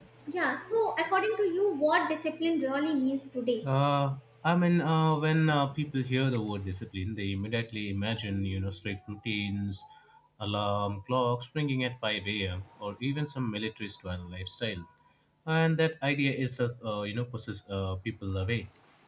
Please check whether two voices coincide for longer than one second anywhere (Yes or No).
No